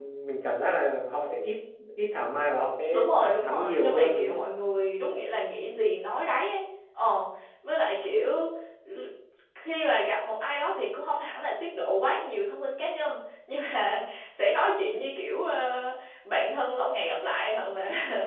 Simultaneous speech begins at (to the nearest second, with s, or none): 3 s